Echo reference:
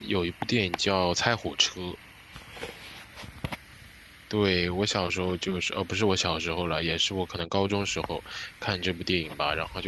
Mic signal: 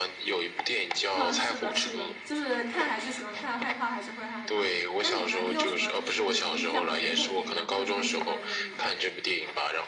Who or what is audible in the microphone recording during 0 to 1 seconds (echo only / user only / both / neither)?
echo only